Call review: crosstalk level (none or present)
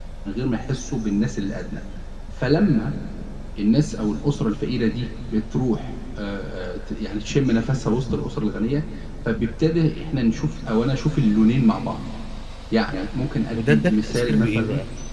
present